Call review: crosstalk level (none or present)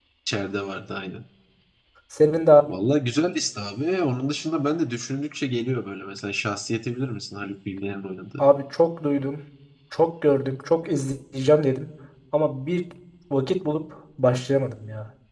none